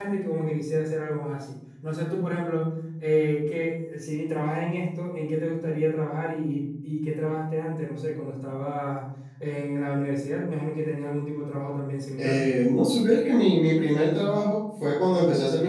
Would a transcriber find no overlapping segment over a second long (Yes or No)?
Yes